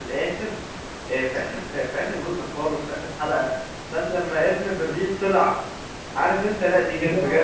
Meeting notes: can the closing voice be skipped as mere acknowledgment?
Yes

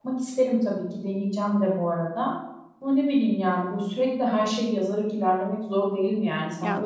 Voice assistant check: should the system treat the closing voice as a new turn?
Yes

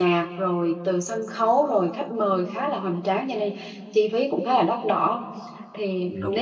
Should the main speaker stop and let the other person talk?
No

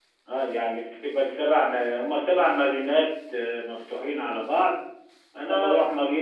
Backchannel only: Yes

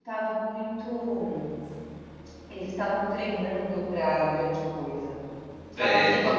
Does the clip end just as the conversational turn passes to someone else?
Yes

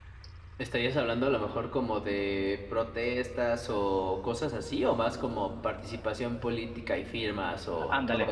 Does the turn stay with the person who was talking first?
No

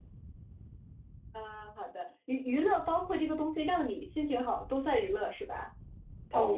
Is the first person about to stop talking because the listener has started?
Yes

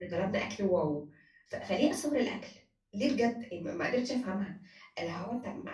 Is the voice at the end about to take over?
No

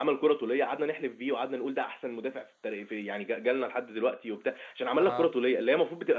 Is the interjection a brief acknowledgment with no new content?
Yes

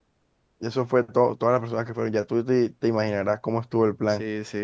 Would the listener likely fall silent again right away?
No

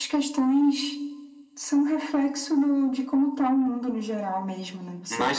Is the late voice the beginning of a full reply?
Yes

